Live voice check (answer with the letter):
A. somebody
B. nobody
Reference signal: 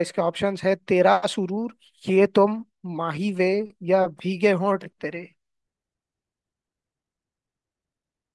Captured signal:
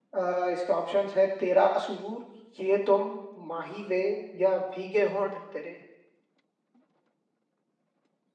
B